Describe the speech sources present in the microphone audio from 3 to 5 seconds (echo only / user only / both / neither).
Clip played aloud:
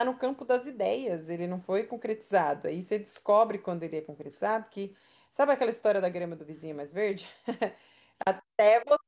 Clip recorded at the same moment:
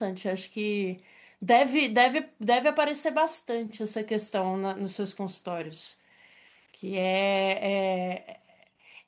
user only